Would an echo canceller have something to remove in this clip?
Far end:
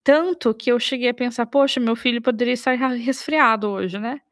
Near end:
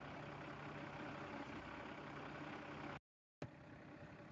No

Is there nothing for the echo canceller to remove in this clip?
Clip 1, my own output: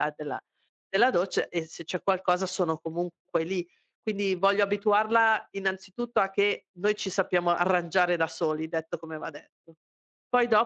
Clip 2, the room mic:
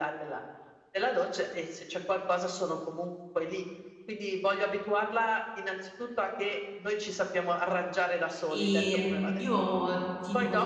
No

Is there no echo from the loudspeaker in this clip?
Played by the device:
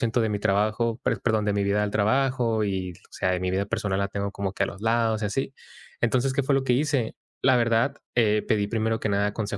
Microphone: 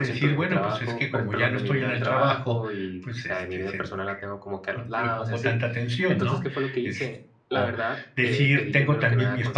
No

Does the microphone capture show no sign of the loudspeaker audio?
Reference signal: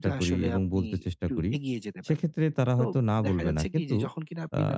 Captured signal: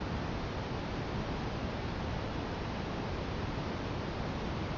Yes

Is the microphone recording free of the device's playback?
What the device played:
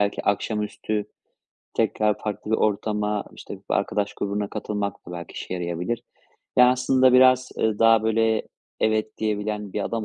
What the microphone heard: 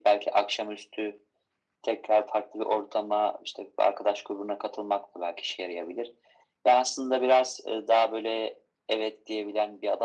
No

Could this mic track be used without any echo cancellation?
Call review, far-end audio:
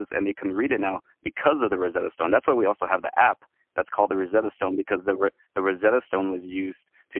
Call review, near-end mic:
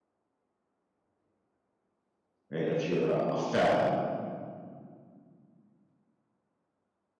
Yes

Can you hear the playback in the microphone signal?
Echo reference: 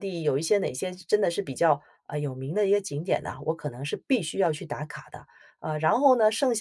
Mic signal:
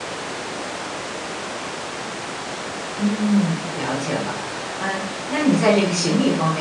No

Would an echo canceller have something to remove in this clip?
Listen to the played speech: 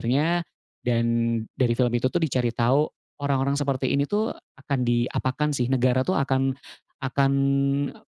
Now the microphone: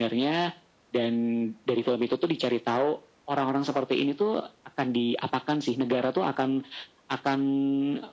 Yes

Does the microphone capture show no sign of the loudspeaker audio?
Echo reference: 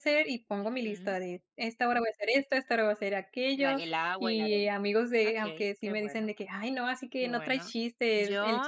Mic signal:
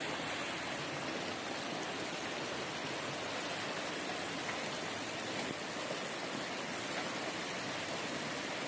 Yes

